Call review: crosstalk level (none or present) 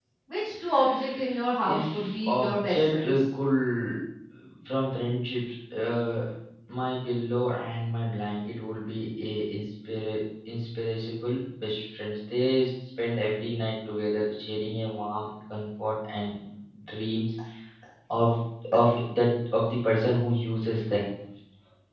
present